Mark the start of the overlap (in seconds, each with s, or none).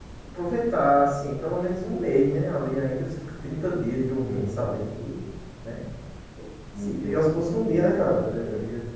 6.8 s